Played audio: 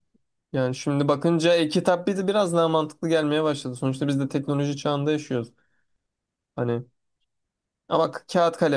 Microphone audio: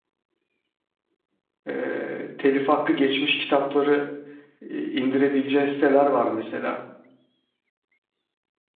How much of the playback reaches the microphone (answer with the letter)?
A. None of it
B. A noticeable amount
A